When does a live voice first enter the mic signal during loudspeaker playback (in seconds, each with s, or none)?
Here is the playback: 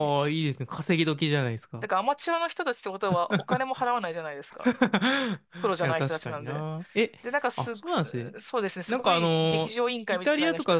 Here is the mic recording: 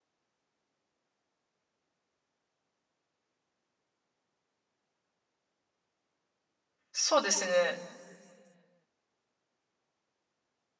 6.9 s